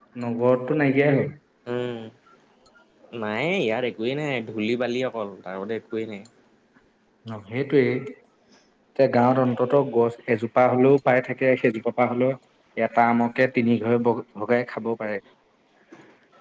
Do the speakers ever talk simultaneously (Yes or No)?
No